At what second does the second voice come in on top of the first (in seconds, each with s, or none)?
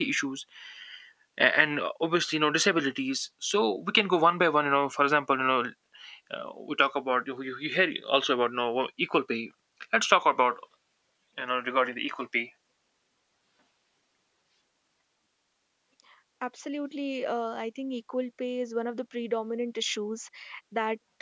none